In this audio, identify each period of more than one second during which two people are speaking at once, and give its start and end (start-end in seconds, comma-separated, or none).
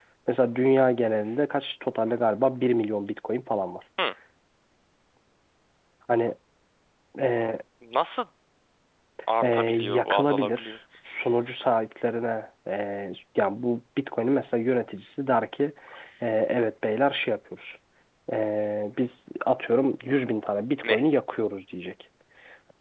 9.4-10.7